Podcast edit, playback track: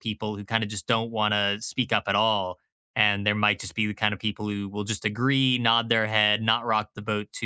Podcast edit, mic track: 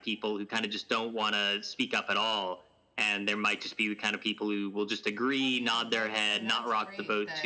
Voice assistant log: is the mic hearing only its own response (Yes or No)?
No